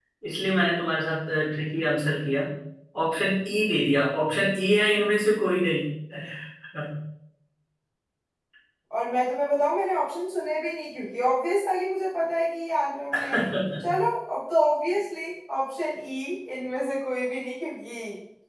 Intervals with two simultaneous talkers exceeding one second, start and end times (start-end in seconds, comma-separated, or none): none